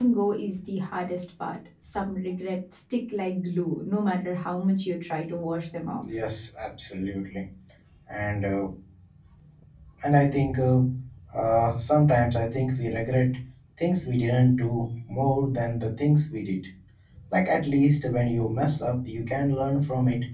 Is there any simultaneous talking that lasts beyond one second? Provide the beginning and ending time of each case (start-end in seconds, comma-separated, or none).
none